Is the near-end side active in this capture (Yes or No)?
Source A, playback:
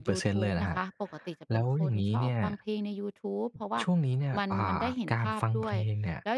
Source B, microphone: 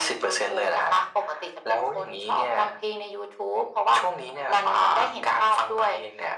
No